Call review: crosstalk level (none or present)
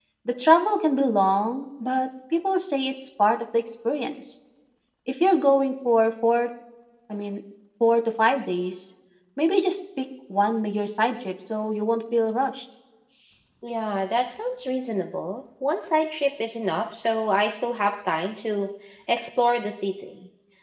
none